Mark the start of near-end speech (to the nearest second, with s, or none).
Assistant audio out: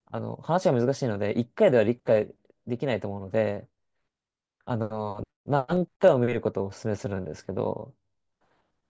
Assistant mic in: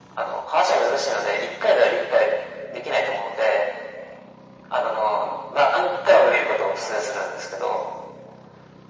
none